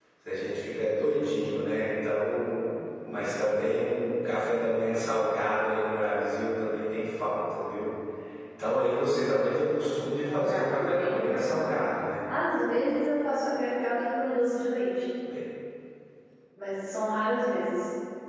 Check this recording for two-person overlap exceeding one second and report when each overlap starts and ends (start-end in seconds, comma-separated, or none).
10.3-11.7